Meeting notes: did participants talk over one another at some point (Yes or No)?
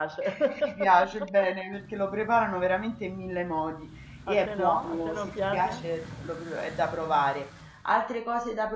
Yes